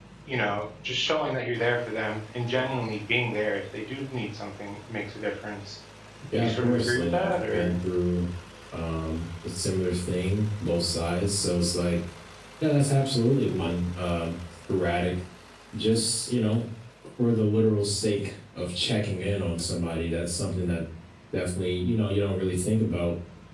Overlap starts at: 6.3 s

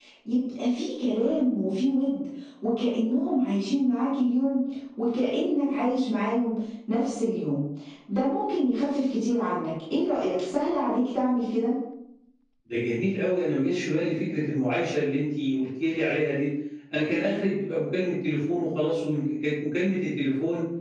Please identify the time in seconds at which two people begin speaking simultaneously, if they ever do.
none

